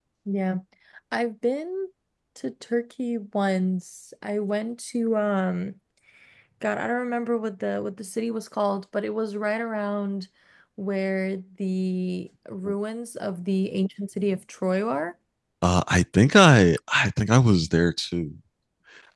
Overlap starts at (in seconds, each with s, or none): none